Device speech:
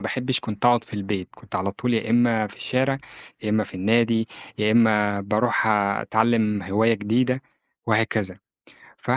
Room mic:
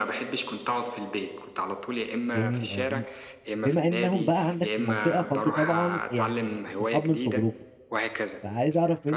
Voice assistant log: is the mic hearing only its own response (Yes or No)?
No